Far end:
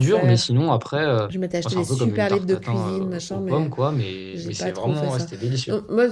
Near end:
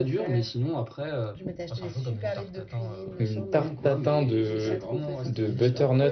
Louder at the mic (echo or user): user